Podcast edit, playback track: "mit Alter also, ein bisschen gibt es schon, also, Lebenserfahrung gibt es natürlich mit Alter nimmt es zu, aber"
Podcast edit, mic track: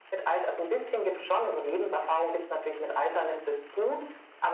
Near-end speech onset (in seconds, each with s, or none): none